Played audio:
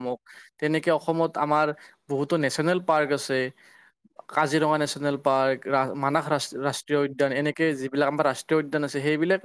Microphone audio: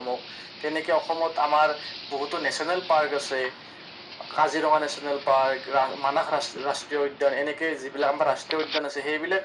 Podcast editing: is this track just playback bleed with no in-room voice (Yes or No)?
Yes